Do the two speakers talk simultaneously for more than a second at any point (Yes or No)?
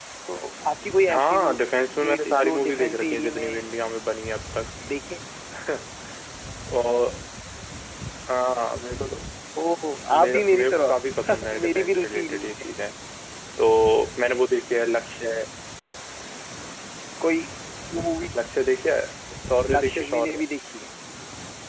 Yes